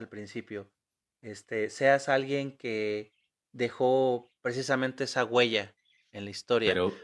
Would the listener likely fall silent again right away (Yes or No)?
No